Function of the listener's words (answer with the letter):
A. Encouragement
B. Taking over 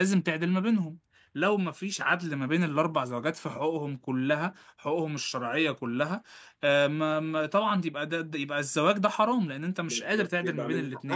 B